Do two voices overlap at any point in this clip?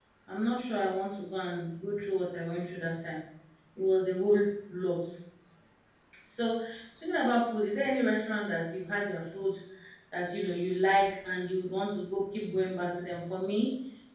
No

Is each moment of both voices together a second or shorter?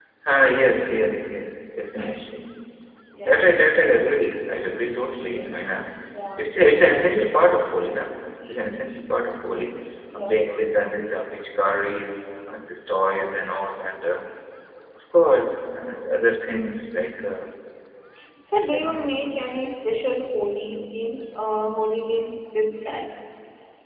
Yes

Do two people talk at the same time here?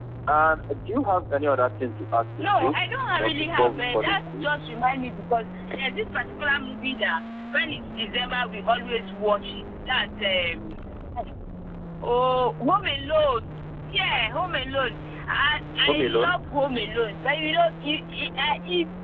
Yes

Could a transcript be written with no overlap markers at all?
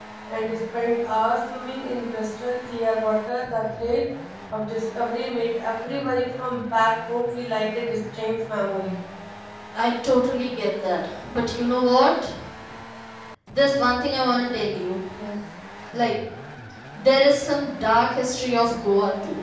Yes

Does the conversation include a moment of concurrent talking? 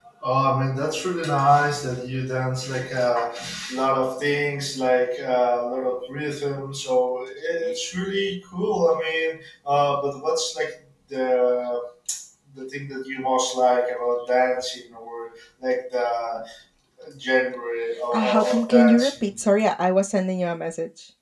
Yes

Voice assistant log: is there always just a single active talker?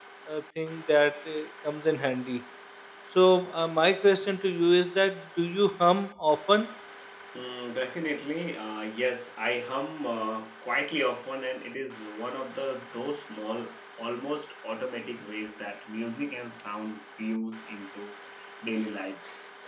Yes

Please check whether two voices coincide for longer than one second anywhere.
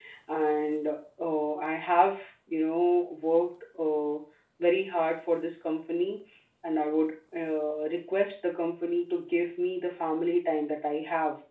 No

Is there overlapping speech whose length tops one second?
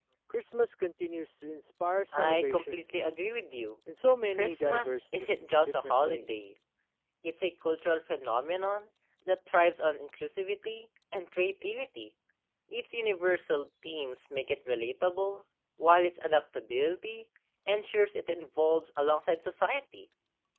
Yes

